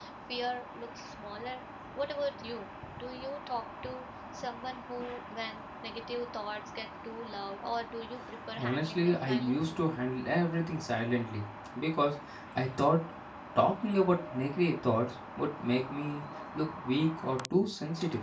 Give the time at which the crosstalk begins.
8.6 s

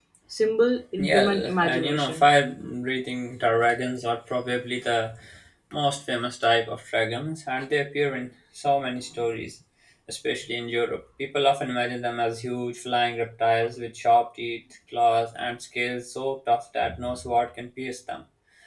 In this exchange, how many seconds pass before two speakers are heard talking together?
1.0 s

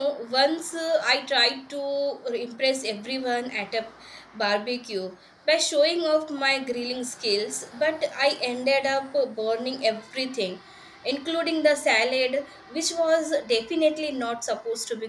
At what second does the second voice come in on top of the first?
none

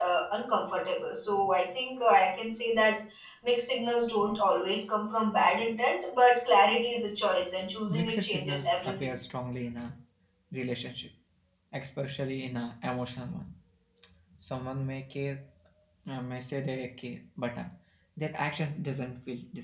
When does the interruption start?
7.9 s

